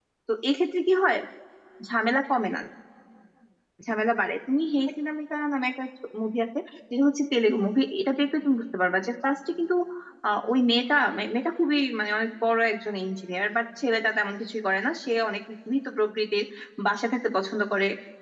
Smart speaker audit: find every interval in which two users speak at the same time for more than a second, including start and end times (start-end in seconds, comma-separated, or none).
none